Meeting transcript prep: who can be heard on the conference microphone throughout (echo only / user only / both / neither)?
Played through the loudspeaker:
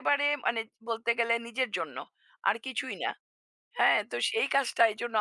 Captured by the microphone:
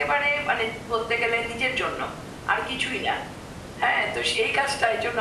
echo only